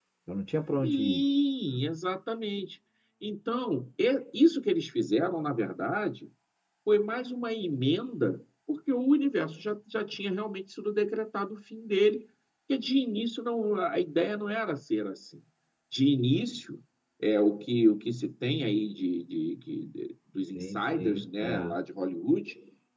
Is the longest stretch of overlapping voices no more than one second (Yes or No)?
No